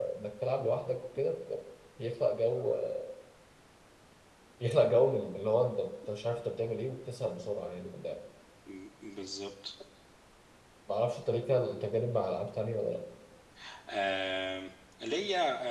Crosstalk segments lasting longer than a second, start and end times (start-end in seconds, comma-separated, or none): none